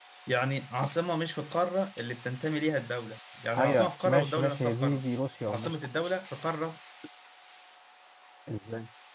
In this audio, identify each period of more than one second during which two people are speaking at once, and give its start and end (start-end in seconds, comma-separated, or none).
3.6-5.0